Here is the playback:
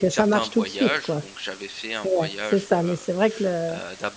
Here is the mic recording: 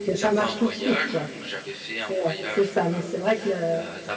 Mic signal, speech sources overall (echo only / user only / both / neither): echo only